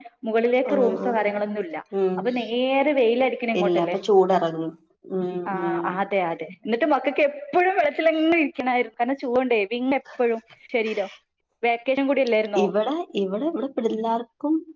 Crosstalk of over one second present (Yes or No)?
No